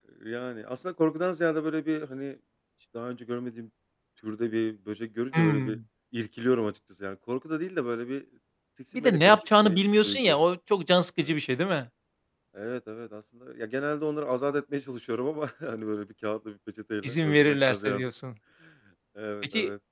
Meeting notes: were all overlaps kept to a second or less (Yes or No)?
No